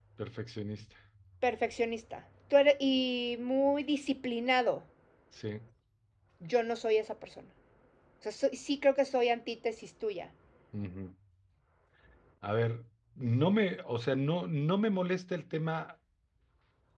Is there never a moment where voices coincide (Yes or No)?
Yes